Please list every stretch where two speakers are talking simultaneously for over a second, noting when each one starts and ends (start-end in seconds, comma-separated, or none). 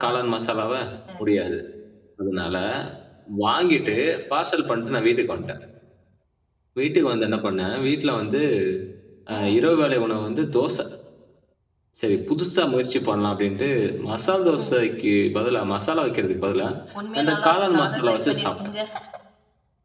17.2-18.5